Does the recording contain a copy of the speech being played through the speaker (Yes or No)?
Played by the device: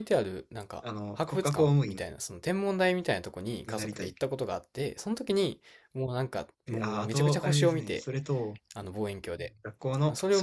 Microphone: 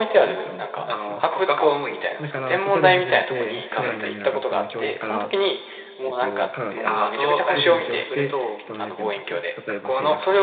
Yes